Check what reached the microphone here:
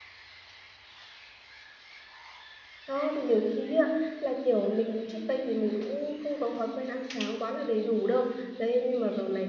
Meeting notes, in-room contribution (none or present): present